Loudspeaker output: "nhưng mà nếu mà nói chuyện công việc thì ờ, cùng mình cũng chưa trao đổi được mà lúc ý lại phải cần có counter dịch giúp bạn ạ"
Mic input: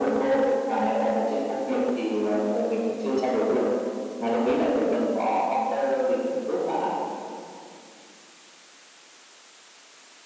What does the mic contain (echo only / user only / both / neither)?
echo only